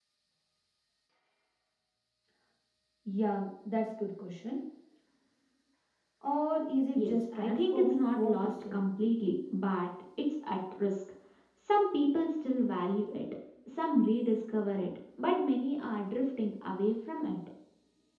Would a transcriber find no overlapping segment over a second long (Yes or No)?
No